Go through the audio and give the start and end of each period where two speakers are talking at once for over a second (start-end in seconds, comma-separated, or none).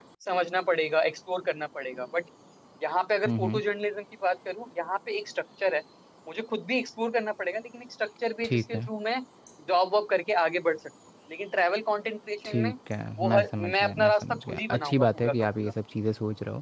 13.2-15.7